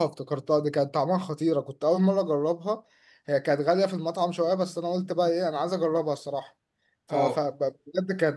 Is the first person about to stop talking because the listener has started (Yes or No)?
No